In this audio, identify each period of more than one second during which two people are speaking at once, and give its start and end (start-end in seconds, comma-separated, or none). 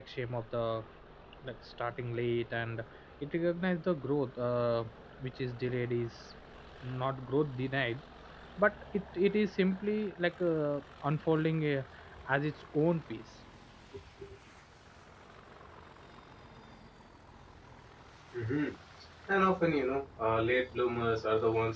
none